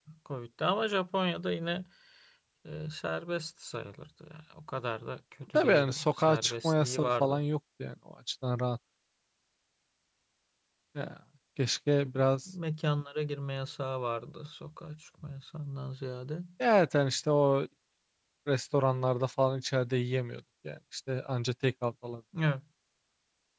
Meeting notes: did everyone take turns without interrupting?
No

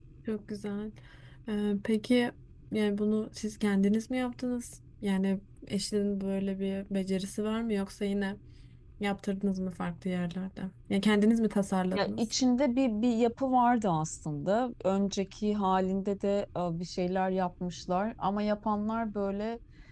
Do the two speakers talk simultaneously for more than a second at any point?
No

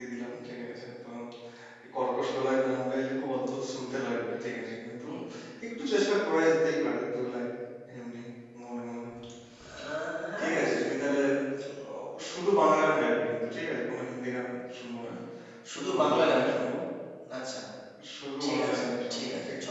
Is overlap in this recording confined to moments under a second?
No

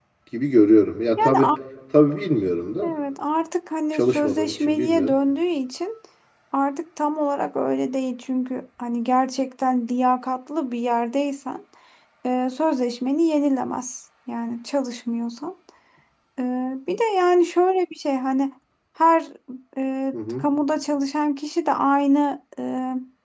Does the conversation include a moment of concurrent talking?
Yes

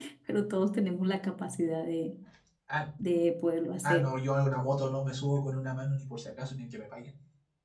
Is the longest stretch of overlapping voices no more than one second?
Yes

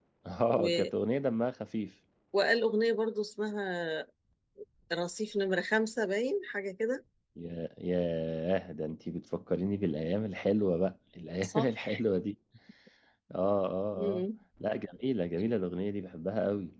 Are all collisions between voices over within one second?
Yes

